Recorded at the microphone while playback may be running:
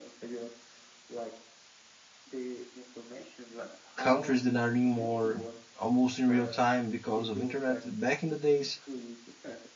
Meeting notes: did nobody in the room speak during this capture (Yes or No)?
No